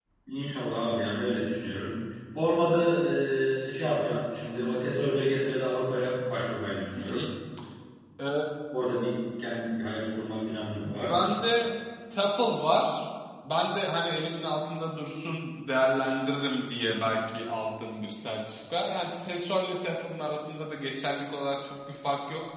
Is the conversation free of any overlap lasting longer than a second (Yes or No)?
Yes